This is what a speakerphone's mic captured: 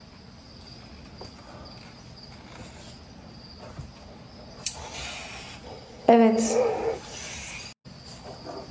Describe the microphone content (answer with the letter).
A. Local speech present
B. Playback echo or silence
A